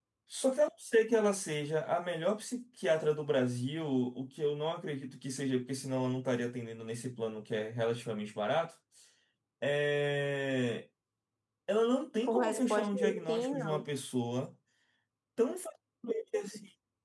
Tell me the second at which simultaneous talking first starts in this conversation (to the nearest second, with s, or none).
12 s